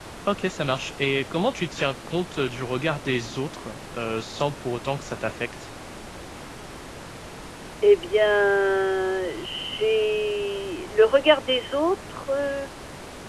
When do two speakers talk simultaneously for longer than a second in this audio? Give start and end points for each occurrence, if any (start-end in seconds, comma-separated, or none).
none